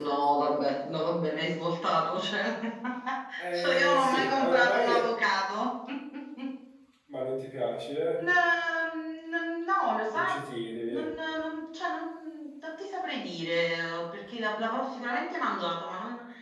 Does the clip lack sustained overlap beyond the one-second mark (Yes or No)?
No